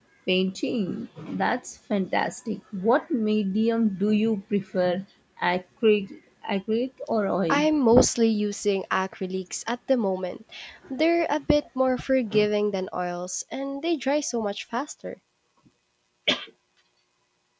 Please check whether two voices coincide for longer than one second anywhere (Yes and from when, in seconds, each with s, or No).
No